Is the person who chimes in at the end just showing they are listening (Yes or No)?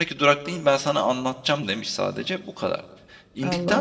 Yes